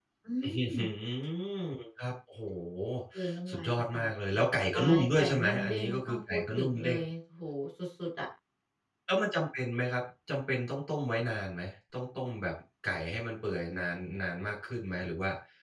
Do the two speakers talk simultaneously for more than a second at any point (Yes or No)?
Yes